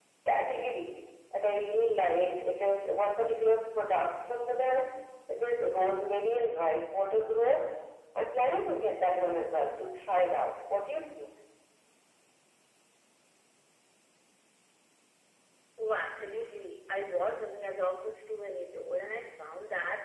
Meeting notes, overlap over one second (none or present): none